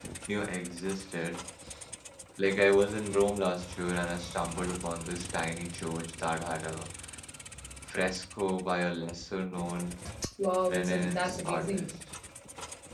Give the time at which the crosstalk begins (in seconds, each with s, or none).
10.7 s